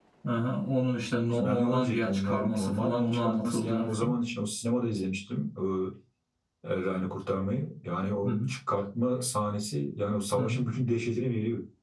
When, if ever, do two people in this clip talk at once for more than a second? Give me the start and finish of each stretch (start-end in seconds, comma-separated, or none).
1.3-4.1